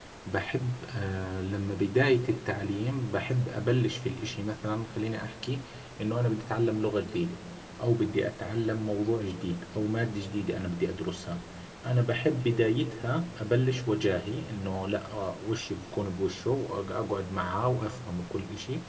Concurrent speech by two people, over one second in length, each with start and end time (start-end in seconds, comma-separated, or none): none